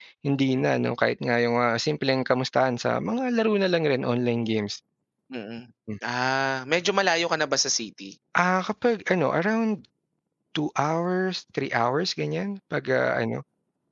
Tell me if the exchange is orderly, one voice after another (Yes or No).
Yes